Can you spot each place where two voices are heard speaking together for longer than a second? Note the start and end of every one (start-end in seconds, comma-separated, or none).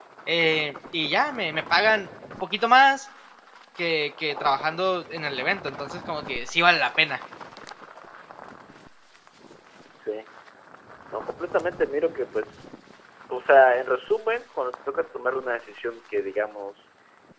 none